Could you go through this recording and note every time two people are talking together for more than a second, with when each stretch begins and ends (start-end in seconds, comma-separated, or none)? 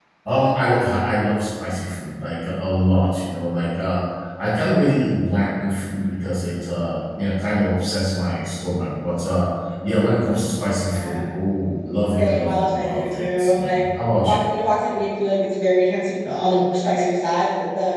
12.2-13.8